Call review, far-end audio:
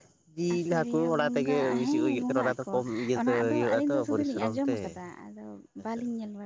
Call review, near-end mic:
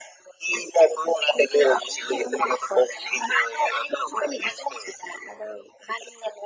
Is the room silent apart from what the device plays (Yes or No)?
Yes